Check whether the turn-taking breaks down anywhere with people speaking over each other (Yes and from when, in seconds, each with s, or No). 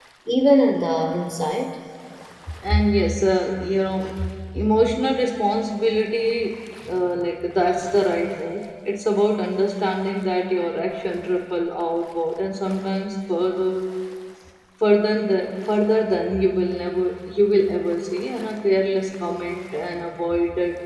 No